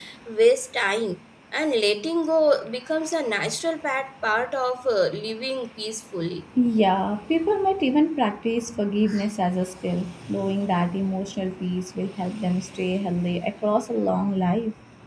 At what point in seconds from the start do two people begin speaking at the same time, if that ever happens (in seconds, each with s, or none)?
none